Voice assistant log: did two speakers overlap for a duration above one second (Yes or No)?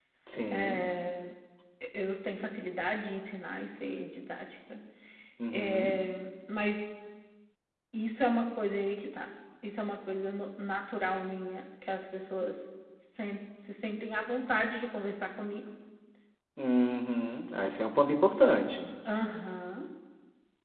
No